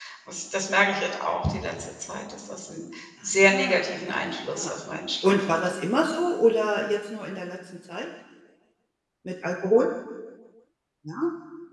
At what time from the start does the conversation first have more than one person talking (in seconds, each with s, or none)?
3.4 s